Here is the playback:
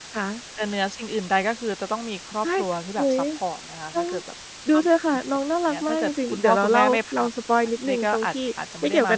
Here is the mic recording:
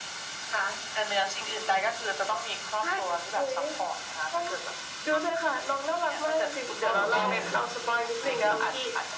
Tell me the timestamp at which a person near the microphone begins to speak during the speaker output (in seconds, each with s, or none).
6.8 s